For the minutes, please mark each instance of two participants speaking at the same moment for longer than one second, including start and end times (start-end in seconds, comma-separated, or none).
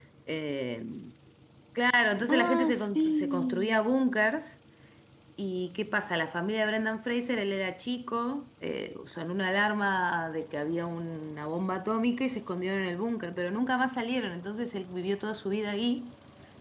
2.3-3.8